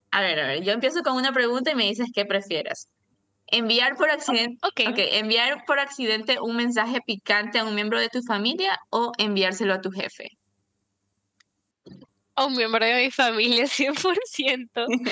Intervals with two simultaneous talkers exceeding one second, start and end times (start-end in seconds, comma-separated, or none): none